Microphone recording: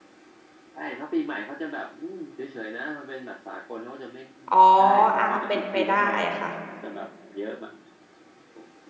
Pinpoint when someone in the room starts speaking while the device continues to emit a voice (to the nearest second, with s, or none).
4 s